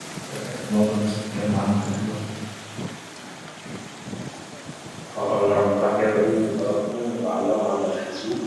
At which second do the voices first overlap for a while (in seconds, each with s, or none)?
none